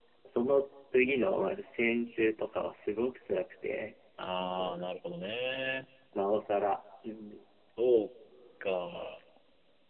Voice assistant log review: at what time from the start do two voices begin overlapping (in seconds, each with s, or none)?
none